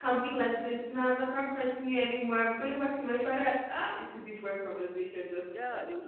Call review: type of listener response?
taking over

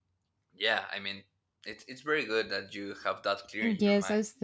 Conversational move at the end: taking over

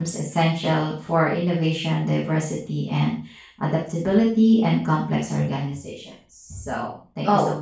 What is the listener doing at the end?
taking over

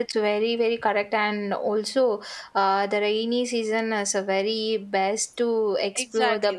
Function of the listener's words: taking over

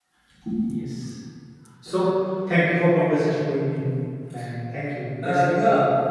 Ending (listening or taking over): taking over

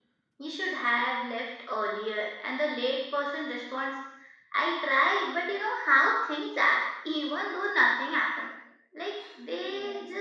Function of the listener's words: listening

